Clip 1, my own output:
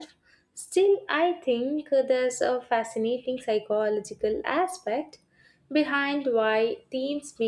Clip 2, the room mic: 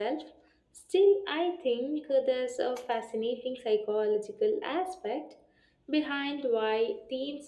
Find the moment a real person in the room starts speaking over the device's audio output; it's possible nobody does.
none

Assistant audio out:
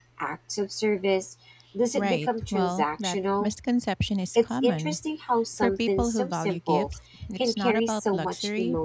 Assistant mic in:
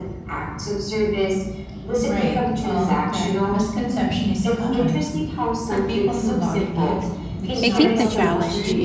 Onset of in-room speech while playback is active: 7.6 s

